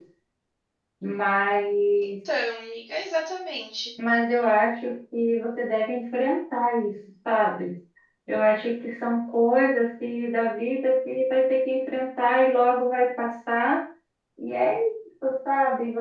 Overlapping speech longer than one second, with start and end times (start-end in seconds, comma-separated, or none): none